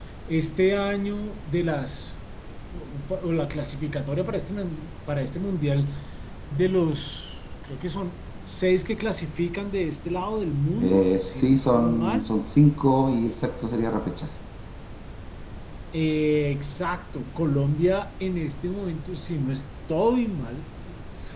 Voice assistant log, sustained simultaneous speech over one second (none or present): present